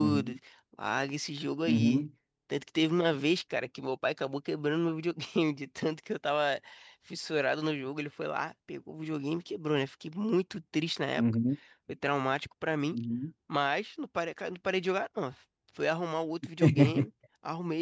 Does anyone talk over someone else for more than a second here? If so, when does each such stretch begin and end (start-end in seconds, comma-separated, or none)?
none